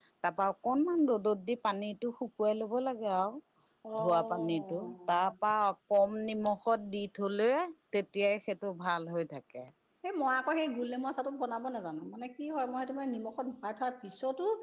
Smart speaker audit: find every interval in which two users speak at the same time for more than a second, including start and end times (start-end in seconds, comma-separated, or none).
4.0-5.2